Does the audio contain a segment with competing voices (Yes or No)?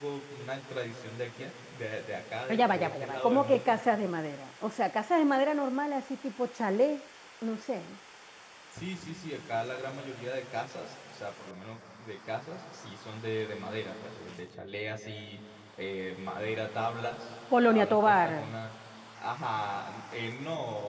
Yes